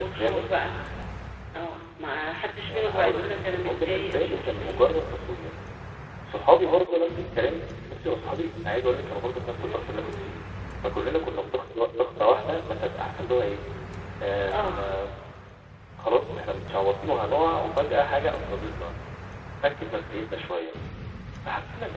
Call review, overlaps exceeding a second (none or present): present